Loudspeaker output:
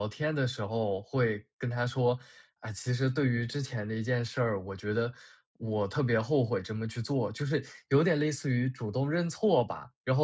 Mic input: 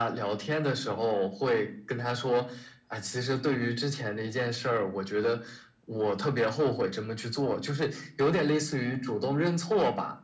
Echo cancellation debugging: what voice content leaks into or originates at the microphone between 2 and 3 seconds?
echo only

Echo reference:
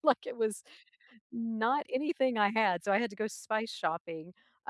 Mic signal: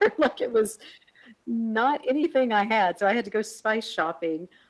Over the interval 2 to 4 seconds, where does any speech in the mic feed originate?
echo only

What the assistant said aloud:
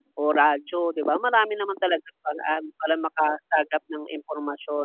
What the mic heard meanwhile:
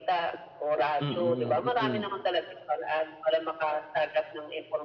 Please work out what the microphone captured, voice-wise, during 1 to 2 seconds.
both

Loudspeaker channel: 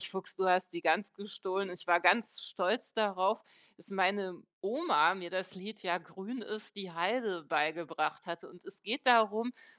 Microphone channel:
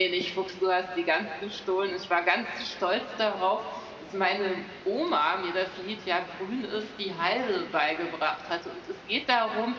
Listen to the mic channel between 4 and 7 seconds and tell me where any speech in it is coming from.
echo only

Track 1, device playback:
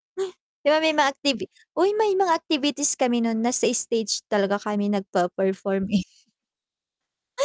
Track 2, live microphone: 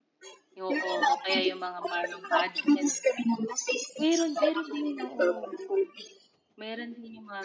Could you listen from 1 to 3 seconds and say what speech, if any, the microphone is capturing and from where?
both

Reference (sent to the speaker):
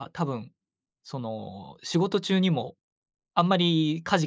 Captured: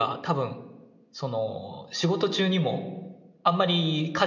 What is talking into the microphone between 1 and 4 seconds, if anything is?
echo only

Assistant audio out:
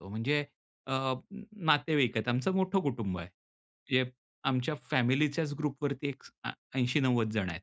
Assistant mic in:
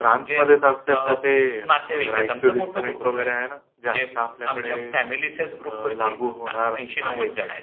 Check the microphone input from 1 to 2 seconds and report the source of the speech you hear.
both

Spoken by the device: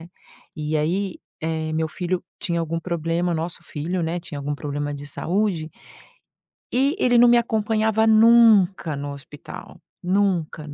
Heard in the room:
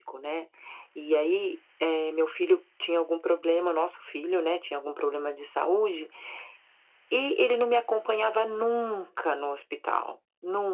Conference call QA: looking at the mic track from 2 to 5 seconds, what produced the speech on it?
echo only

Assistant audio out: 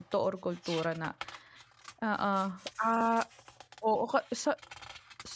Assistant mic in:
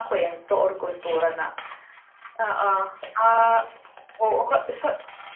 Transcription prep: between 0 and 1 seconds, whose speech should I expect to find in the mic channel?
echo only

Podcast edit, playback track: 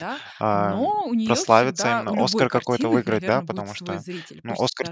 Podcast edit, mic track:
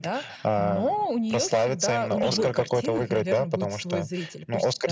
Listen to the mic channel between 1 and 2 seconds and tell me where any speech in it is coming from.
echo only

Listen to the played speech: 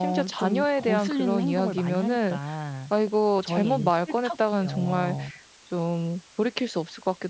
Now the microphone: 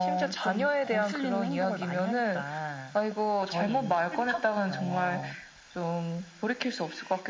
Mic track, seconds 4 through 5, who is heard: echo only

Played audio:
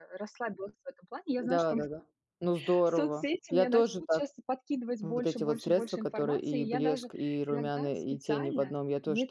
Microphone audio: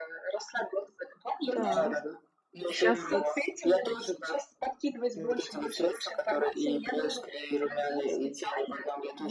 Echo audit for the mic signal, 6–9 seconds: echo only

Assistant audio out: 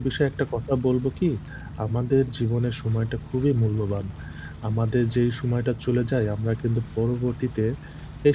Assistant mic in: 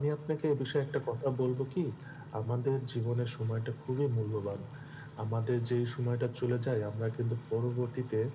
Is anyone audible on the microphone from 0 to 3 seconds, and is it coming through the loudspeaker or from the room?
echo only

